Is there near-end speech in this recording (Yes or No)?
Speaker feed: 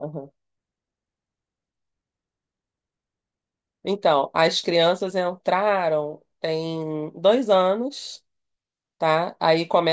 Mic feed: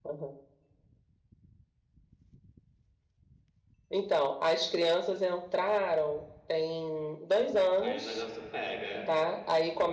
Yes